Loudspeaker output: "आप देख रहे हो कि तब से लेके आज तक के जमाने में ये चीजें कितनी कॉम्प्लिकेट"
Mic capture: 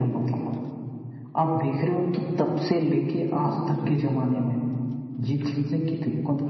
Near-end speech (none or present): none